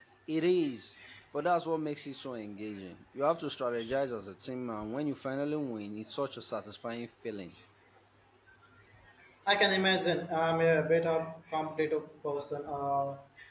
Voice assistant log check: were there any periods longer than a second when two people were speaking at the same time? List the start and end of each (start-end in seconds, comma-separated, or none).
none